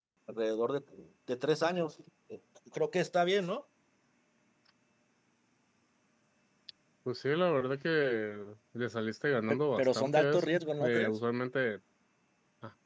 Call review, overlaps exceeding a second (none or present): present